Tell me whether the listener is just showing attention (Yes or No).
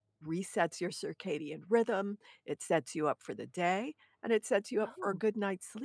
Yes